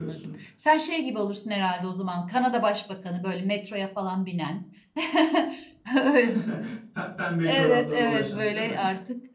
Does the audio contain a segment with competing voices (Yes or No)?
Yes